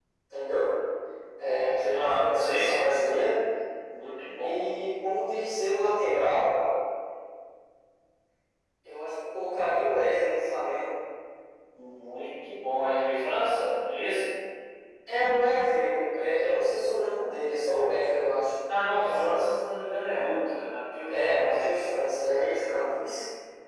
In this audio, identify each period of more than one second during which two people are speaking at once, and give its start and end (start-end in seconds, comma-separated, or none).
1.8-3.2